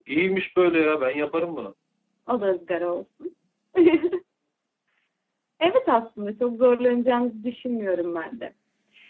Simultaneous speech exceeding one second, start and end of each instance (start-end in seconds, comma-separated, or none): none